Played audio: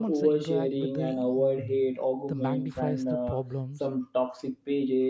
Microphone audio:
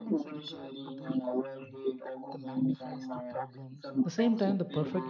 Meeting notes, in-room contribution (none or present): present